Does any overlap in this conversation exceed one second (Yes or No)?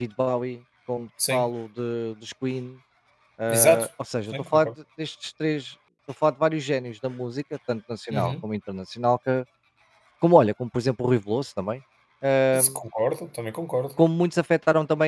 No